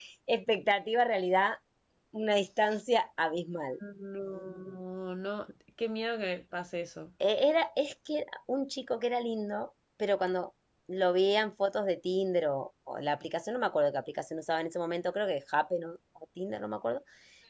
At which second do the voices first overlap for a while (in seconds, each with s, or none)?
none